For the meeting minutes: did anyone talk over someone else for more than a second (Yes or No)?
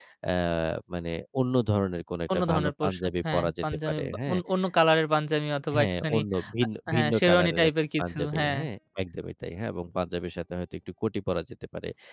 Yes